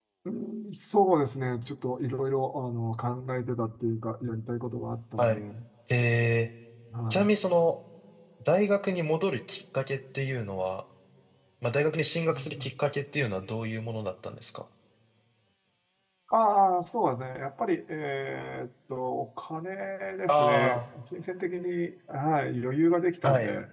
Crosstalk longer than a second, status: none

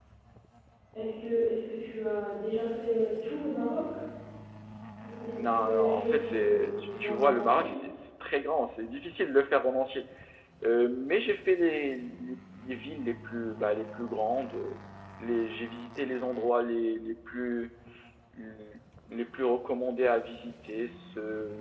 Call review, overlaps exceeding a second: present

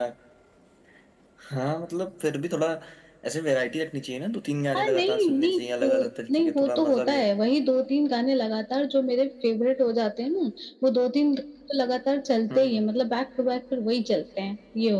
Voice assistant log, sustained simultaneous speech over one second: present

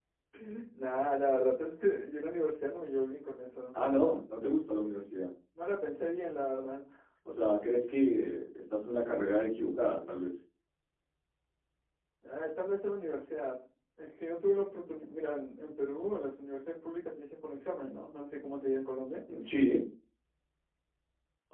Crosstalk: none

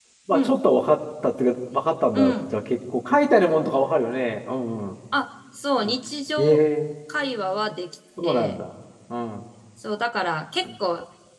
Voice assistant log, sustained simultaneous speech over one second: none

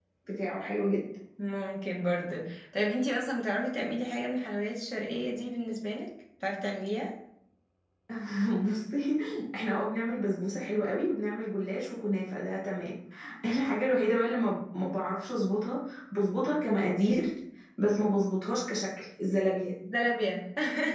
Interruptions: none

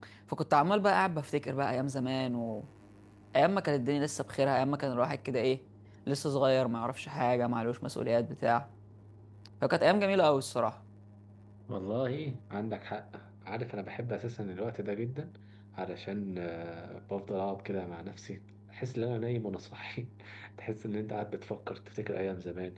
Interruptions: none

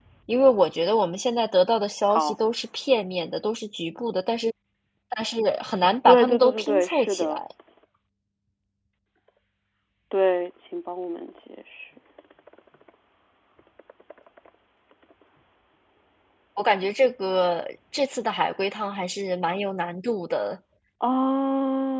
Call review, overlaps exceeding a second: present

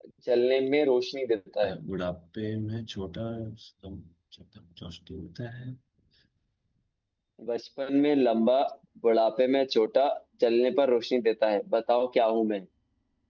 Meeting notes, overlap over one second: none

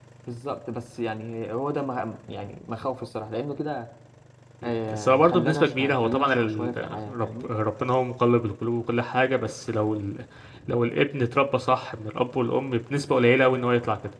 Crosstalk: present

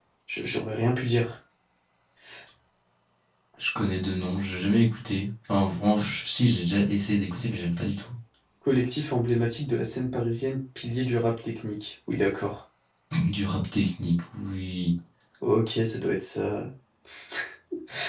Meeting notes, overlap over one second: none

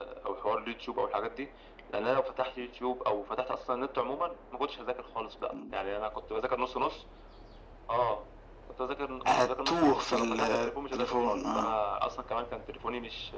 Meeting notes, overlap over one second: present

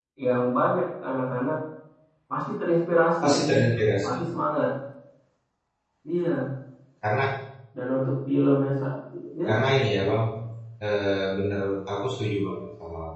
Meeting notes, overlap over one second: none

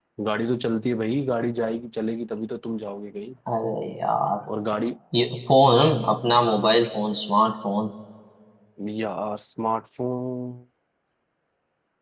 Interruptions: none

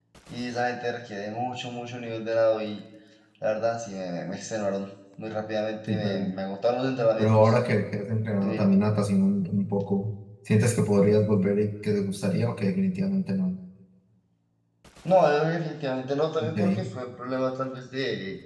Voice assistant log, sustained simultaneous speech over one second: none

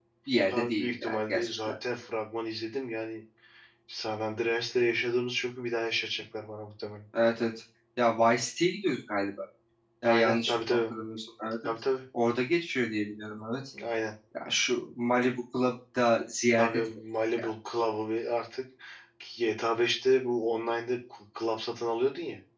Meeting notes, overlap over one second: present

